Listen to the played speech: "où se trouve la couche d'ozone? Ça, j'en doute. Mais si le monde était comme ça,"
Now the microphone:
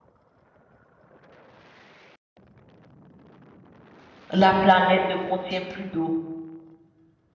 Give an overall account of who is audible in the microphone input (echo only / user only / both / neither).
user only